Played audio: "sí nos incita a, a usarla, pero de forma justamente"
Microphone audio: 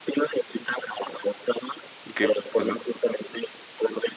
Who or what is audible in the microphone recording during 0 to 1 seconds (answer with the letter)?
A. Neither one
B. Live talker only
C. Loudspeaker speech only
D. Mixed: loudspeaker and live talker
C